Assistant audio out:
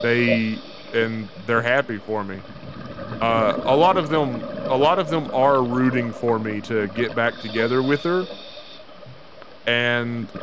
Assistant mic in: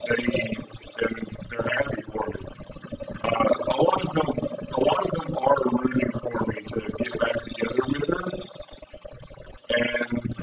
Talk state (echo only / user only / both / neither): echo only